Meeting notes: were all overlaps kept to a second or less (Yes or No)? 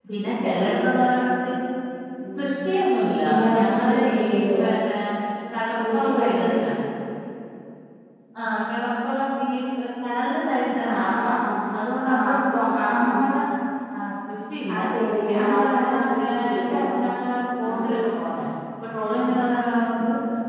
No